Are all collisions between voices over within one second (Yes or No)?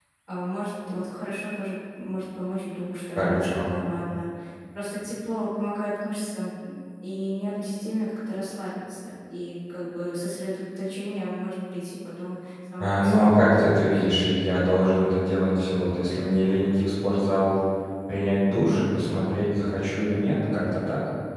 No